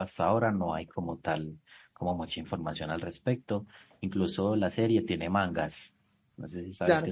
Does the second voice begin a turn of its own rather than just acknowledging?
Yes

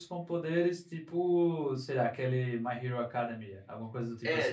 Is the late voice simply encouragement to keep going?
No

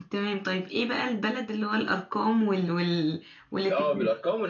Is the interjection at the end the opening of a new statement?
Yes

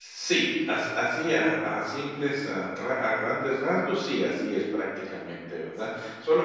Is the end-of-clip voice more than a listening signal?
No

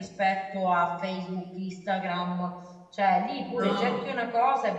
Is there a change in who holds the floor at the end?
No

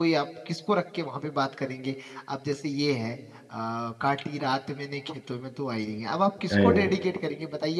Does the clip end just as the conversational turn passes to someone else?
No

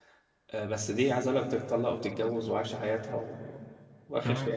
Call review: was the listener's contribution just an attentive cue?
Yes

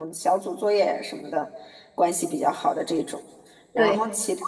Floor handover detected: No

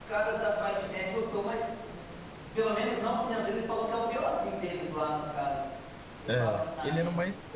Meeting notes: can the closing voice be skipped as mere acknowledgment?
No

